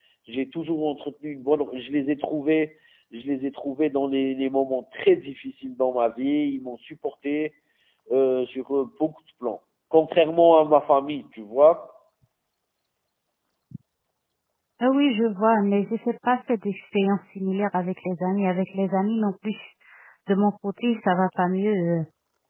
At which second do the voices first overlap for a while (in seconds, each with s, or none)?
none